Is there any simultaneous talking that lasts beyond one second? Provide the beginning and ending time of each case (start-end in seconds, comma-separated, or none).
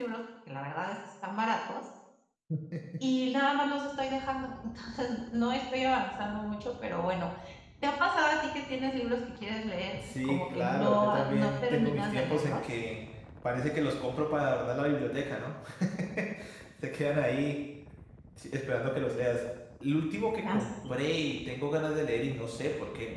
10.0-12.6